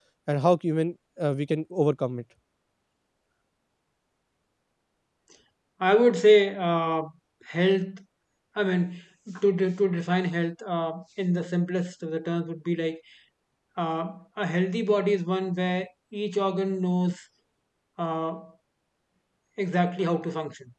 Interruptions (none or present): none